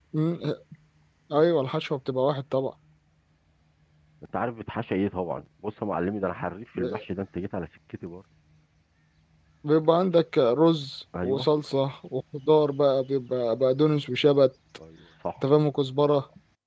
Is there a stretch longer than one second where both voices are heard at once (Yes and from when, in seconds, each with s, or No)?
No